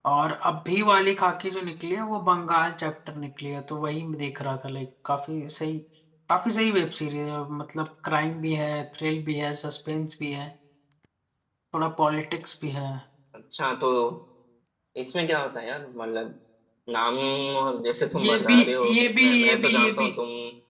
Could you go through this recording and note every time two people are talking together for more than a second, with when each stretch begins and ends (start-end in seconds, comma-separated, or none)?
18.2-20.1